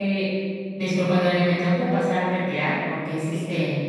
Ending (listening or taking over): listening